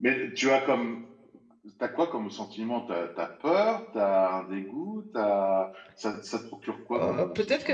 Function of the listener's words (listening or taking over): taking over